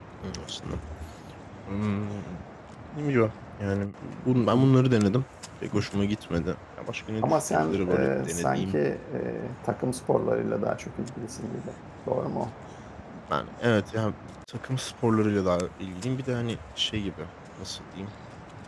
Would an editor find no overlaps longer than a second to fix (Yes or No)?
No